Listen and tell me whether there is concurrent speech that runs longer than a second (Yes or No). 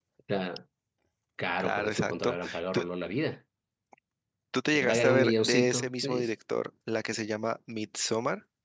Yes